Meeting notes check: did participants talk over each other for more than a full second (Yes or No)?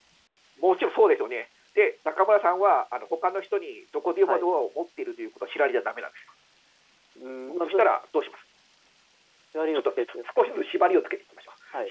No